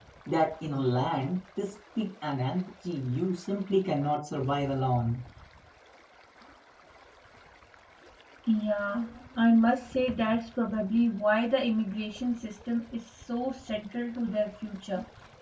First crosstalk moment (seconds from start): none

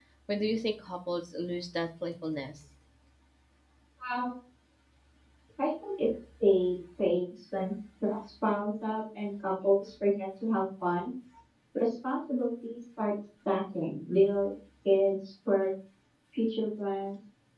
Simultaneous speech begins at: none

